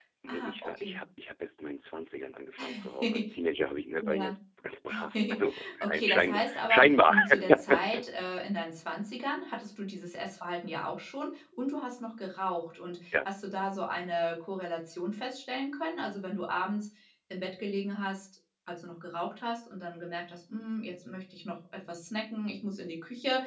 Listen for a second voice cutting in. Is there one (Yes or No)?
Yes